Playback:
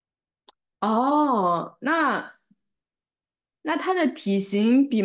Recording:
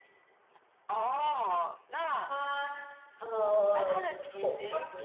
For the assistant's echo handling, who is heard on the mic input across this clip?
both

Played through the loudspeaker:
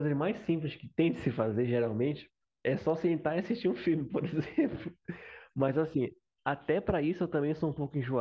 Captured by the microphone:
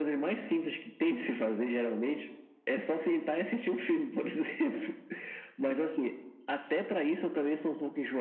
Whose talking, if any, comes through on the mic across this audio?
echo only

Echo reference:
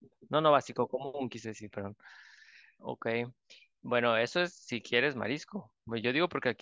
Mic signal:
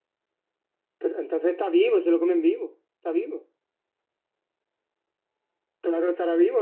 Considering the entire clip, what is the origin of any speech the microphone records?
user only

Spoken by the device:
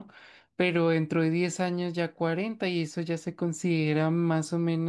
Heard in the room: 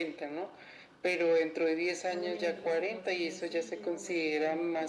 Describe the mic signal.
both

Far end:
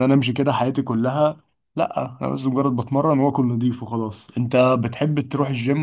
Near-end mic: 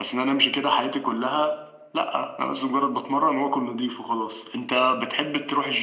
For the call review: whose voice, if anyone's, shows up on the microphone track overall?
echo only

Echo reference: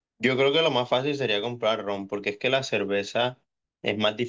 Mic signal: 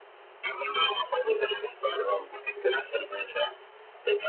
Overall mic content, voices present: echo only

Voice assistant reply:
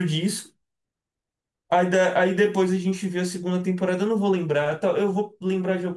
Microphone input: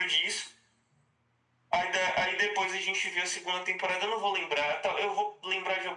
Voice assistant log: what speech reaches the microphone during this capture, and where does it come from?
echo only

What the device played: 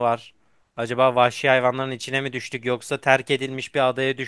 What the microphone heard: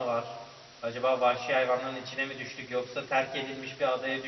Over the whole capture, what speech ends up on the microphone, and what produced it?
echo only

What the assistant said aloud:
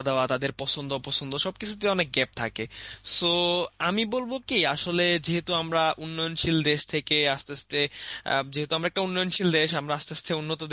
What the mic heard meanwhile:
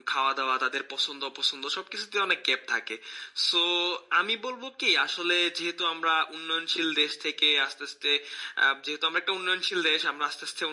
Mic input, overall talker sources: echo only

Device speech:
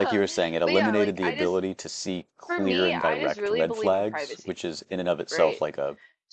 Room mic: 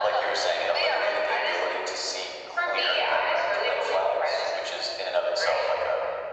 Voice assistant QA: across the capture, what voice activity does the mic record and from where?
echo only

